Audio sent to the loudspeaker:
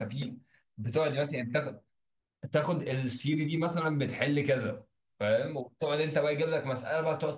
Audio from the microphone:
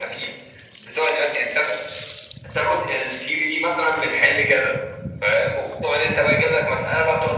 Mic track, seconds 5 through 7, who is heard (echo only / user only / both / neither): echo only